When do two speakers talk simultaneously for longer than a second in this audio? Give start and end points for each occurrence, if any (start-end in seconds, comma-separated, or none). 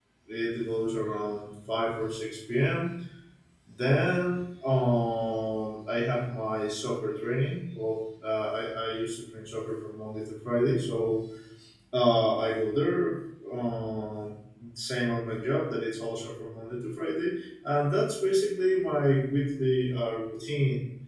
none